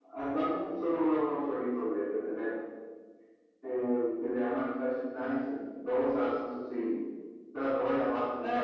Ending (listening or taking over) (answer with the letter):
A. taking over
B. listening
A